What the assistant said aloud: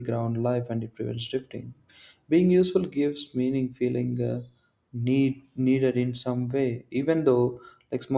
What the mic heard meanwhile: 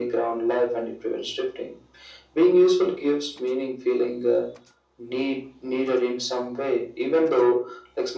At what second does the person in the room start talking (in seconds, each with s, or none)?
none